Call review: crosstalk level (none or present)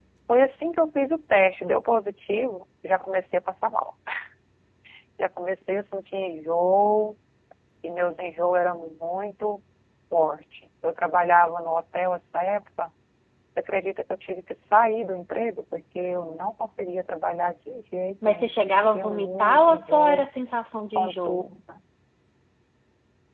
present